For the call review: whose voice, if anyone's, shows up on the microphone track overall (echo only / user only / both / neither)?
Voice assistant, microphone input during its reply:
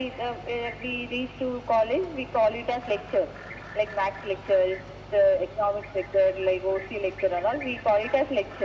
echo only